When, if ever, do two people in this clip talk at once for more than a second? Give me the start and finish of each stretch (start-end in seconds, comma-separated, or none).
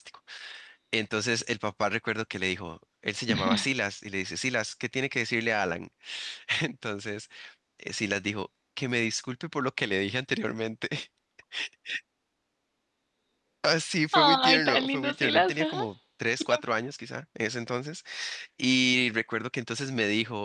14.1-15.8